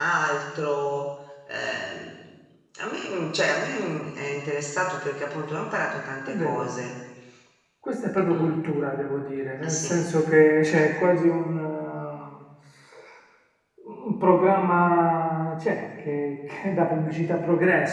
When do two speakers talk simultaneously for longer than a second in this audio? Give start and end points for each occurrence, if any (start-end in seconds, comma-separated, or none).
none